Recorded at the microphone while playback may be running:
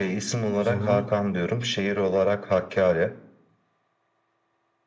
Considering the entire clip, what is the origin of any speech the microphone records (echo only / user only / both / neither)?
both